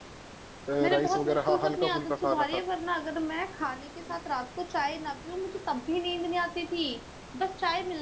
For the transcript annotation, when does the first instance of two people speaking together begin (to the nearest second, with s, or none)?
1 s